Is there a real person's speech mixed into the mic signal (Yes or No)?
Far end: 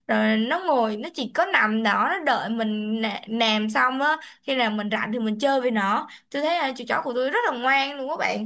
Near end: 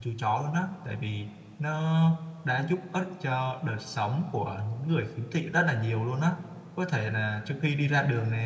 Yes